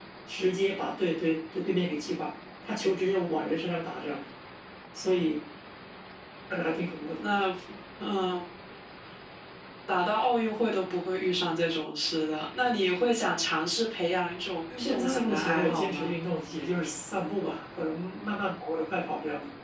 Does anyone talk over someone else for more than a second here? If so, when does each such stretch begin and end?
14.8-16.2

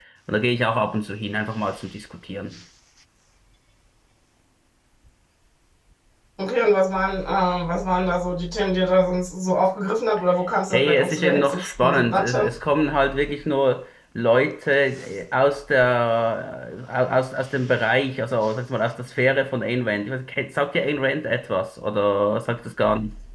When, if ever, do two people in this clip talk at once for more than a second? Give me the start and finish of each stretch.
10.7-12.5

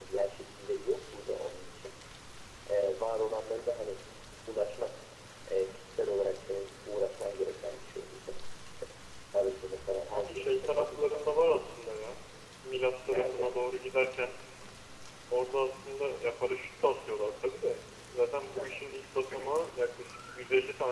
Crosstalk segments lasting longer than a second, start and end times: 10.1-11.6

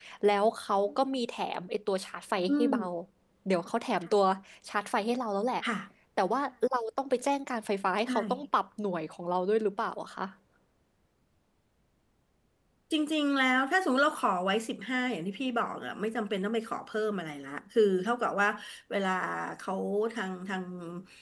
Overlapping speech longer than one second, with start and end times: none

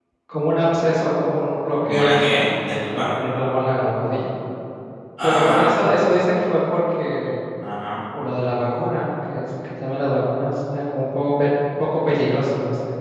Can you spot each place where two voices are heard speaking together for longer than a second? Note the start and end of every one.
1.8-3.0

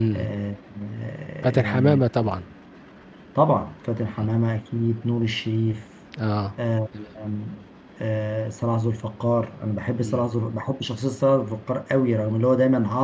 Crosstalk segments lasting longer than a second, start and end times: none

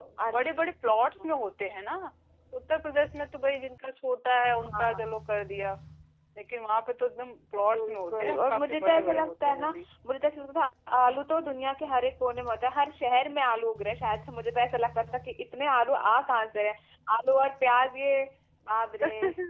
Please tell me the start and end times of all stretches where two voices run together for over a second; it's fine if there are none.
7.7-9.7

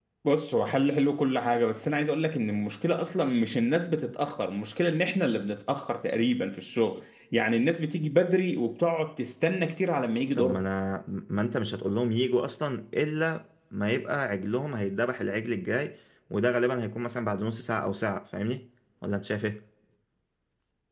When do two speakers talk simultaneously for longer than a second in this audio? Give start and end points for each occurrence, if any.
none

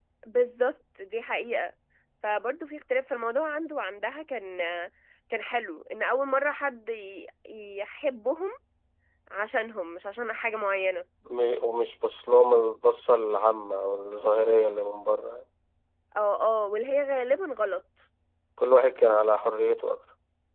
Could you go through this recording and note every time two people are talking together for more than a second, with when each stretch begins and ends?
none

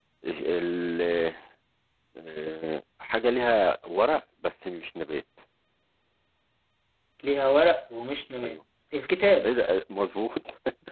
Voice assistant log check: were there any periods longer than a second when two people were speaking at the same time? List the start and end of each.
none

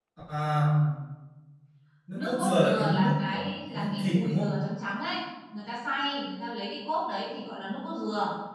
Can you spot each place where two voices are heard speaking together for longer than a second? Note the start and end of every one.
2.1-4.5

